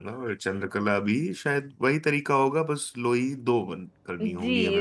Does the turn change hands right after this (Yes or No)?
Yes